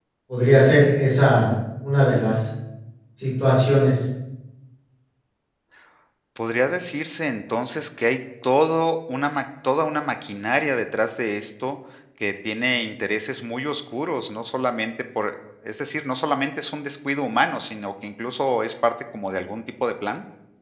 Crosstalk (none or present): none